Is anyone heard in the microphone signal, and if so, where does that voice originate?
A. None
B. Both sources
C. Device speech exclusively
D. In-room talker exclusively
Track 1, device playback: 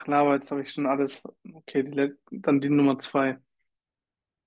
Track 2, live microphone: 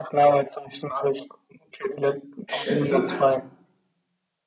B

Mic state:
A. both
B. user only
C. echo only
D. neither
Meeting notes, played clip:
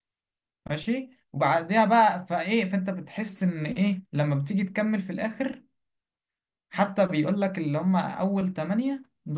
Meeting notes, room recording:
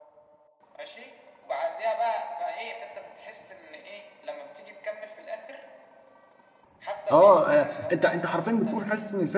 A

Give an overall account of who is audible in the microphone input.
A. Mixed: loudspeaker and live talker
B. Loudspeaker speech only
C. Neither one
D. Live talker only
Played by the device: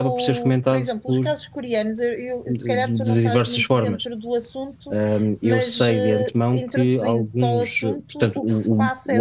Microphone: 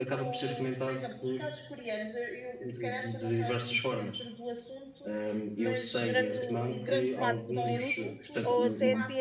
A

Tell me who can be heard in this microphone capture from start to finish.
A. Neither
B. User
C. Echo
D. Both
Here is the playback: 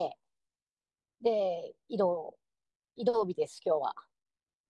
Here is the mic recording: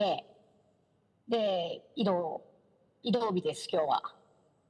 C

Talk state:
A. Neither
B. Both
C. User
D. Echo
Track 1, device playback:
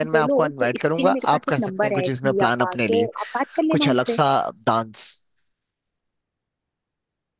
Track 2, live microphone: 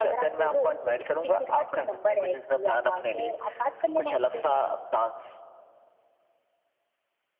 D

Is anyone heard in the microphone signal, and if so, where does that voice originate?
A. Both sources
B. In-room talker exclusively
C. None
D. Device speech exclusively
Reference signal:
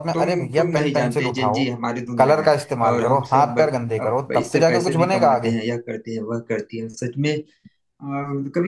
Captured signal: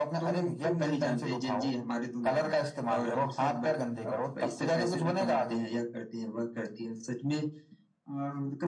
D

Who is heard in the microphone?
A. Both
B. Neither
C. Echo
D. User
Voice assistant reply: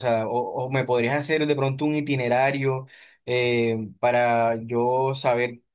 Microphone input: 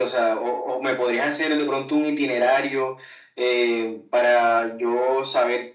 C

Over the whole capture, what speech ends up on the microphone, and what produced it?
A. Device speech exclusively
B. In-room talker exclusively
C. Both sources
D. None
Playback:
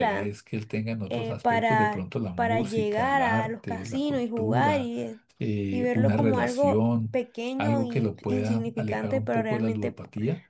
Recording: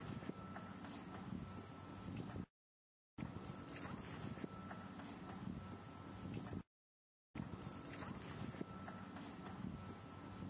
D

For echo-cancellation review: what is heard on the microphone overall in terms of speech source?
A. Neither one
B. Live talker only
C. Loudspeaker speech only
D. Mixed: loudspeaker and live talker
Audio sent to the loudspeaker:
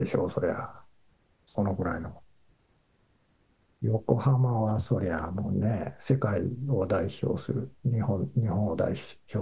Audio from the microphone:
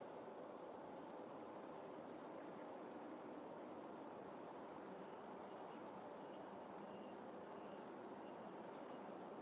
A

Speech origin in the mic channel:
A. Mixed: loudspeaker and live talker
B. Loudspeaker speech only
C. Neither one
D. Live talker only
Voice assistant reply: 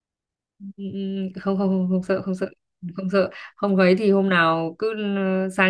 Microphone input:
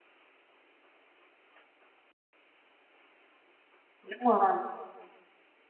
D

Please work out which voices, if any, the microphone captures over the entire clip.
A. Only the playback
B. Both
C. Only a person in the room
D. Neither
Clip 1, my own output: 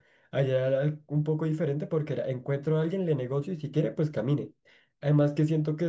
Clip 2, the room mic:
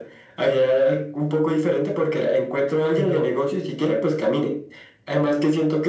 B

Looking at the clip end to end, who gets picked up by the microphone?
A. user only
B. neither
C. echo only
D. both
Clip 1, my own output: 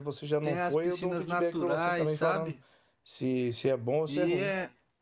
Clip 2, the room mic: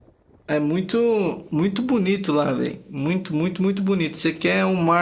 A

